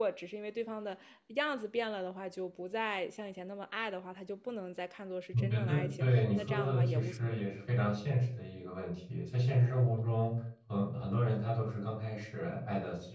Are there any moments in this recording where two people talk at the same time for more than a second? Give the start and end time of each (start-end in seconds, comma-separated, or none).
5.3-7.2